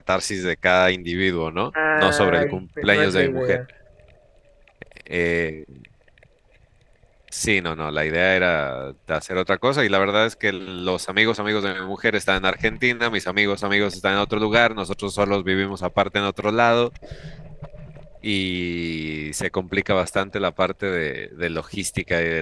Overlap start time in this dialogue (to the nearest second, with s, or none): 2 s